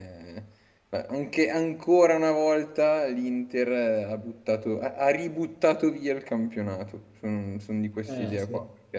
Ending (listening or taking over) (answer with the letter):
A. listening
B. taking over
A